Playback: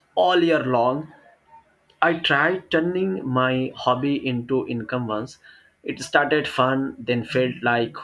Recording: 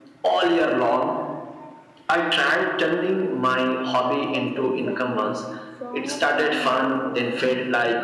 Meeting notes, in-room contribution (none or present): present